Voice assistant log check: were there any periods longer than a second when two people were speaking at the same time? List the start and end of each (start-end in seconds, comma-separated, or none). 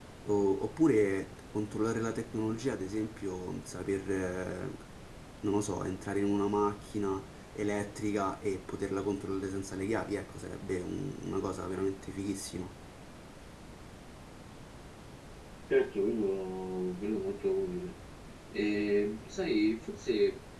none